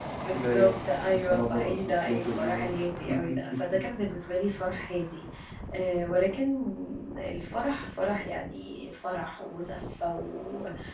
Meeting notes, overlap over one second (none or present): present